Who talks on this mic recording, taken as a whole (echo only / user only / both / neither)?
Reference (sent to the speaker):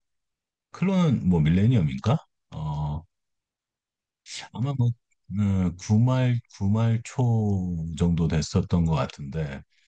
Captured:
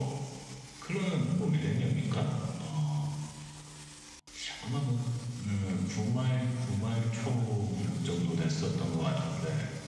both